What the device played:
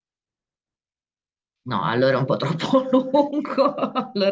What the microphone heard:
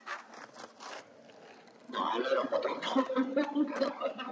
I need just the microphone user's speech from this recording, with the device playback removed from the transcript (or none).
none